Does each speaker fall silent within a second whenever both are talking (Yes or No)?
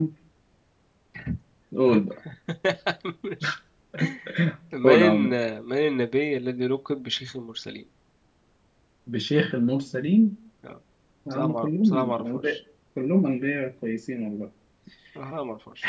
No